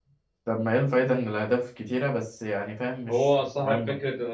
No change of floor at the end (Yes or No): No